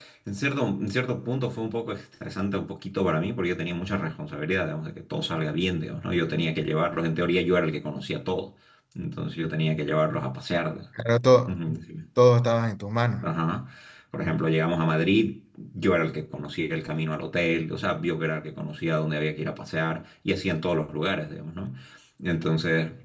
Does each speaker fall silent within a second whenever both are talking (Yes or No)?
Yes